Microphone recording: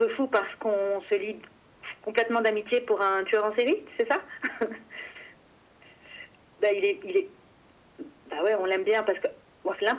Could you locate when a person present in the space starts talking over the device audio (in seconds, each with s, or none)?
none